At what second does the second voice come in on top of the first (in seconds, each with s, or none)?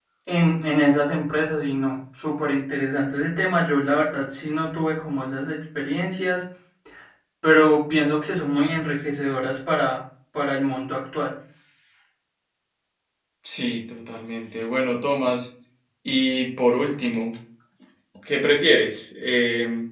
none